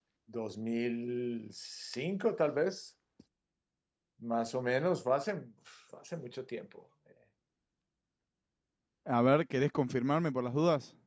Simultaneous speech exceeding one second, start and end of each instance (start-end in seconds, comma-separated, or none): none